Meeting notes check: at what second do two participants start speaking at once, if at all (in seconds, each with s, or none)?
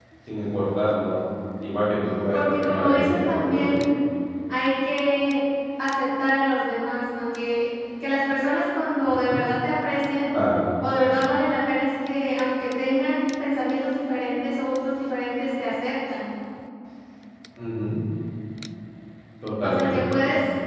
2.3 s